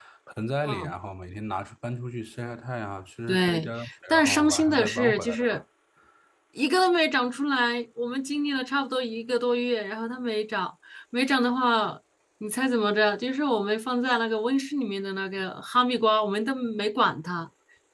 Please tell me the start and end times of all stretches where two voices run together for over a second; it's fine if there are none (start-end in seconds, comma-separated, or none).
3.3-5.6